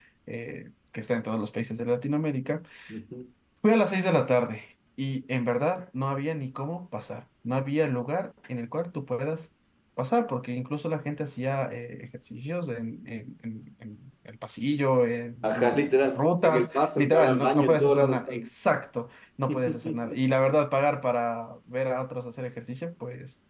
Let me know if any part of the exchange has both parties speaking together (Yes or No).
Yes